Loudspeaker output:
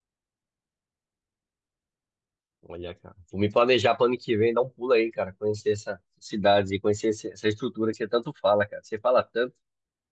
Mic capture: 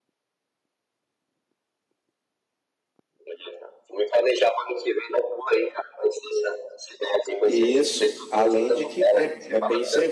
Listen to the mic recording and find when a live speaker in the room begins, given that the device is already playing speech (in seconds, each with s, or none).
7.4 s